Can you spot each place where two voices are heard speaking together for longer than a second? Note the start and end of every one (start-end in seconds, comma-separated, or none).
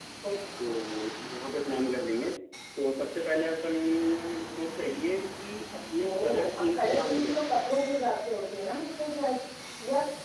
6.0-7.6